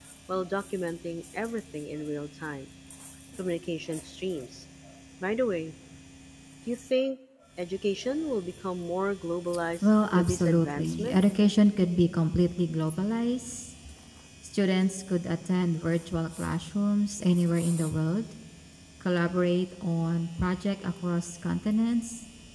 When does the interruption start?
9.8 s

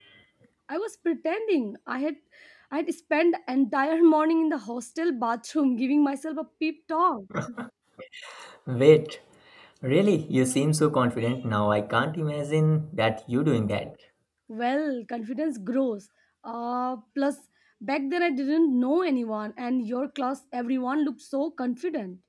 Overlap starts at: none

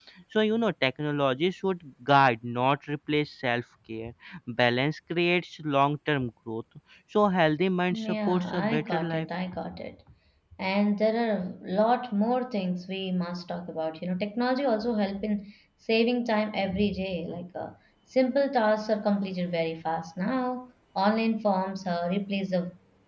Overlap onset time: 7.9 s

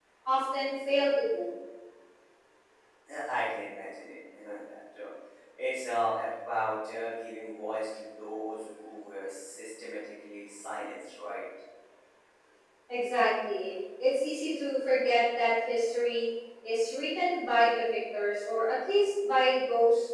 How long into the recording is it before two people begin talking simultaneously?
none

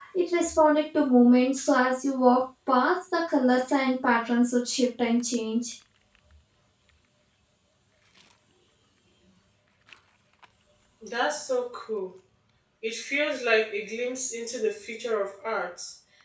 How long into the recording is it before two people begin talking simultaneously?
none

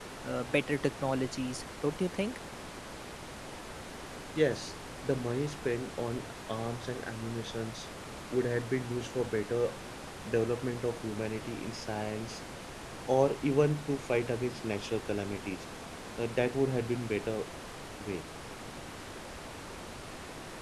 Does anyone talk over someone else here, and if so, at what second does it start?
none

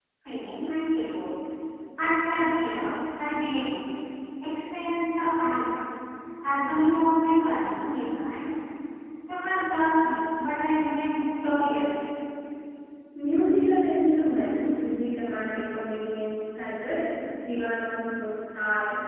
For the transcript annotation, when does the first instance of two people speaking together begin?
none

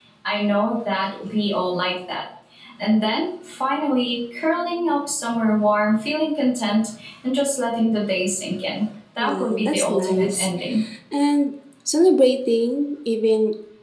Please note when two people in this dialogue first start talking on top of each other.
9.2 s

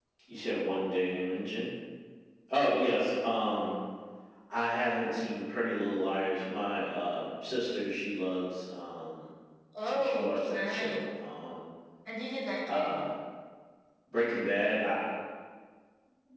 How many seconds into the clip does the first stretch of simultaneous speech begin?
9.8 s

